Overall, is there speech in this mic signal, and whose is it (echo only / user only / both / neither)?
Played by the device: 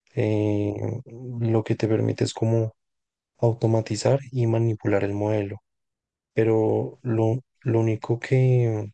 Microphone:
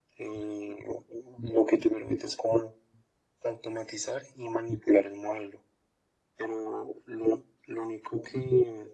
echo only